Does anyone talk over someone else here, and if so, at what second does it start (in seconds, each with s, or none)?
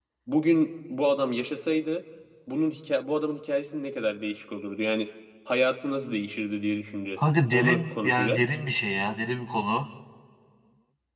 7.2 s